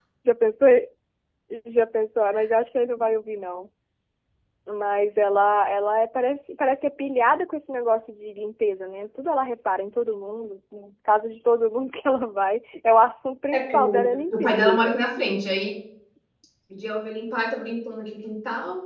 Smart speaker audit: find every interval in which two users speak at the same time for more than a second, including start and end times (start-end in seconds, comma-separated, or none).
13.5-15.0